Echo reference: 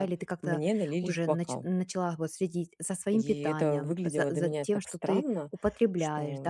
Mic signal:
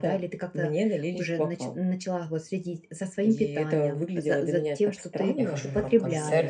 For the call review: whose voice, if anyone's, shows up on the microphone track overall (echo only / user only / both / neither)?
both